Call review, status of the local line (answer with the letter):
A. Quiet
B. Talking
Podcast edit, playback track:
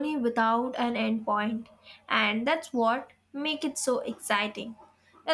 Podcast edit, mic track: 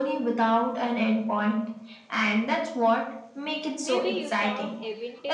B